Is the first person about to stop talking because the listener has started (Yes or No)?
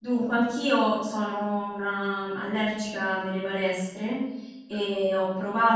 No